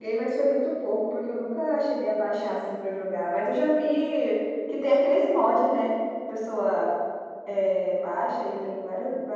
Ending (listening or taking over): listening